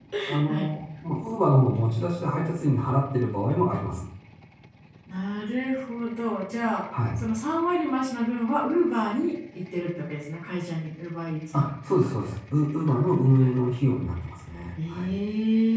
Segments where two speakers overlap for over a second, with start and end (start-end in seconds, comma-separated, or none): none